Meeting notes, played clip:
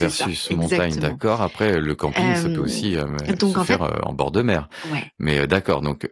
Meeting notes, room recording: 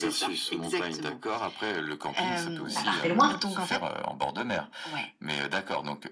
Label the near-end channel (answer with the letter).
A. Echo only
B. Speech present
B